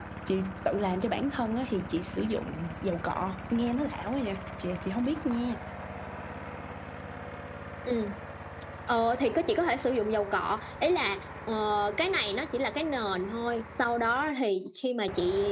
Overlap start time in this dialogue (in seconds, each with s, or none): none